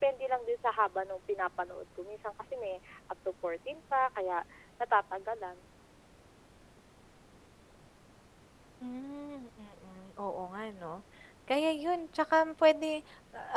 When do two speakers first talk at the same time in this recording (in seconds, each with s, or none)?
none